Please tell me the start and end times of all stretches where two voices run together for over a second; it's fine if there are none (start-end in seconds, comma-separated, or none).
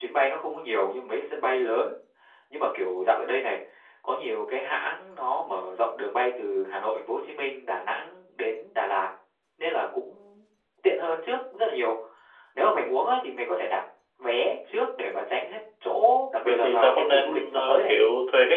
16.4-18.0